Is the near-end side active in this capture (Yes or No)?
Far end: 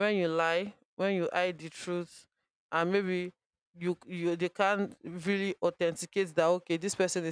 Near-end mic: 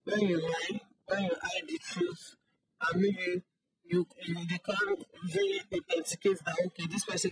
No